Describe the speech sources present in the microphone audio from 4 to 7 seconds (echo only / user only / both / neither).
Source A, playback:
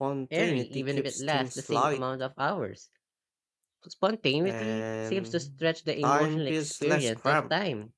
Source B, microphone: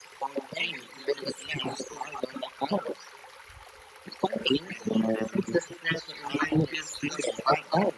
echo only